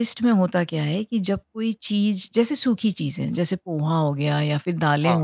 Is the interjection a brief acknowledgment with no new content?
Yes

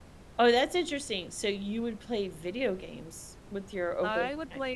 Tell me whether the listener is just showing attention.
No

